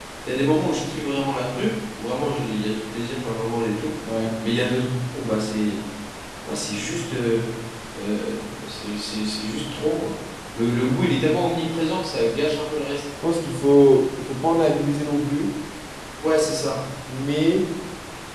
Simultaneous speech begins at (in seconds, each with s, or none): none